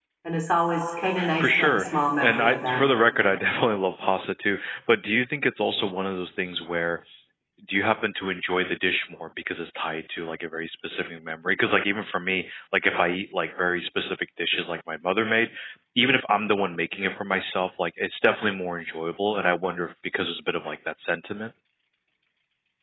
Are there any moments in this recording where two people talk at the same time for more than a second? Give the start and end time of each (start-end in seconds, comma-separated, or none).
1.4-2.9